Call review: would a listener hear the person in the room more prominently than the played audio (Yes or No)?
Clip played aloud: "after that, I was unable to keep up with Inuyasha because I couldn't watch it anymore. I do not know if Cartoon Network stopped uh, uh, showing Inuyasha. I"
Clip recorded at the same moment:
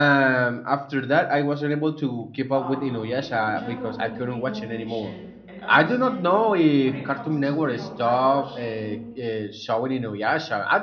No